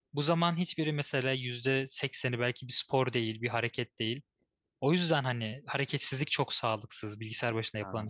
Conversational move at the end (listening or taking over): taking over